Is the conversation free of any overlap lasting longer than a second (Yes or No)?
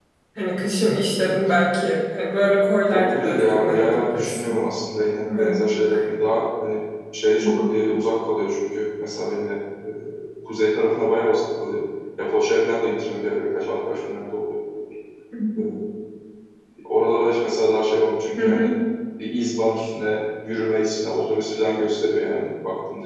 No